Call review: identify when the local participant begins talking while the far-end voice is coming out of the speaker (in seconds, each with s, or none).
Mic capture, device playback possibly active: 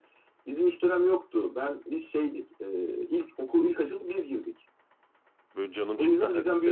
5.5 s